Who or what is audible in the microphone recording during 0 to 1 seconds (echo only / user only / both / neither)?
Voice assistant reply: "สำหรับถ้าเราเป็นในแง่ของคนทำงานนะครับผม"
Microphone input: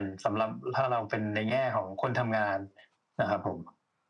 echo only